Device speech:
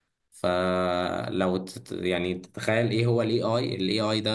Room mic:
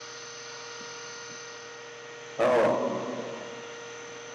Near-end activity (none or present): present